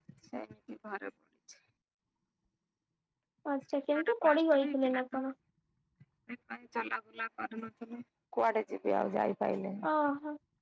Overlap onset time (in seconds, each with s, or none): 4.0 s